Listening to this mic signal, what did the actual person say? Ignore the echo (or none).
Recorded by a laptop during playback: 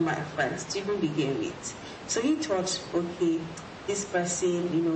none